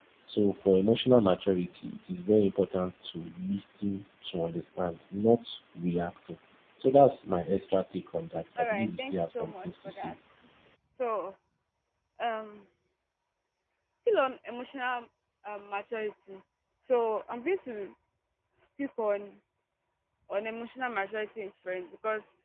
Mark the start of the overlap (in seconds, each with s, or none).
8.6 s